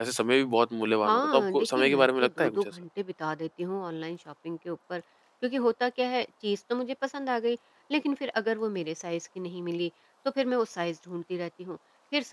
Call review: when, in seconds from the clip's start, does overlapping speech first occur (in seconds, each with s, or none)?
1.0 s